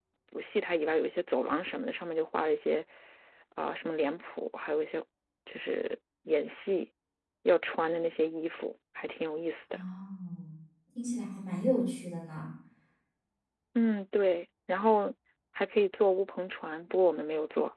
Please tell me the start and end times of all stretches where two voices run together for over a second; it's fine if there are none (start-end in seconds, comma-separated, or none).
none